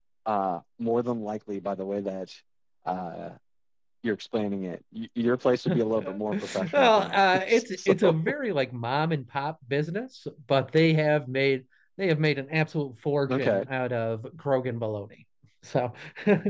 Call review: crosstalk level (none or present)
present